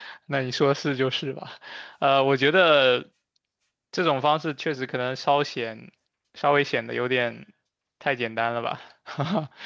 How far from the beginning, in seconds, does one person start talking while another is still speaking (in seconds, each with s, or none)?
none